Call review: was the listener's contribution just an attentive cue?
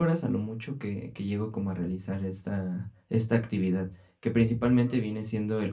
Yes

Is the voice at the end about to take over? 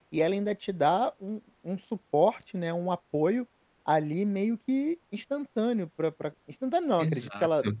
No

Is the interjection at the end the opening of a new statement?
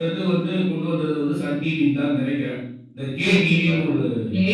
Yes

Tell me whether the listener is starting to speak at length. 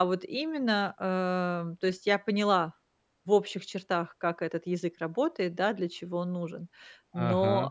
No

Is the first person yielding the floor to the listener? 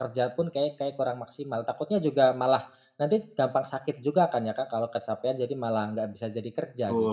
Yes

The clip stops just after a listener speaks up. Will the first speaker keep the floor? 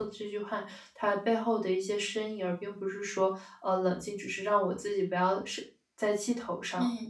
No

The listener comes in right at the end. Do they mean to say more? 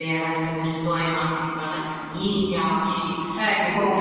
Yes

